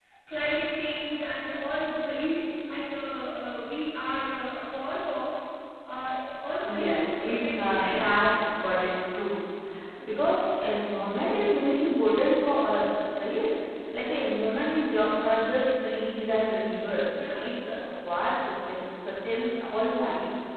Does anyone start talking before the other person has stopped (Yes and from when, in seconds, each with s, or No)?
Yes, from 6.6 s